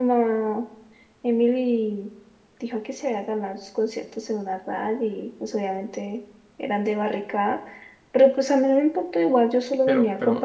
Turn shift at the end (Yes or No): Yes